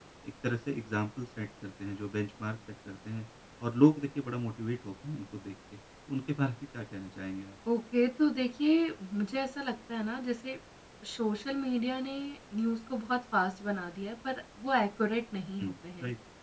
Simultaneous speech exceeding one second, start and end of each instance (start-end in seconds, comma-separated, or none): none